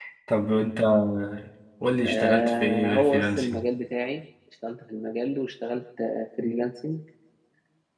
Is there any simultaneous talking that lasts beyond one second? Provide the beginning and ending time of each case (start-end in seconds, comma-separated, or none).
2.0-3.6